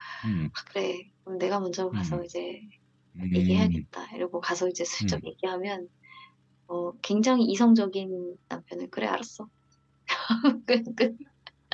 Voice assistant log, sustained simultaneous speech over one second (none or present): none